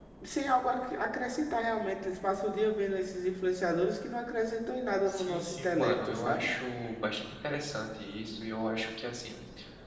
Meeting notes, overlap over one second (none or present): present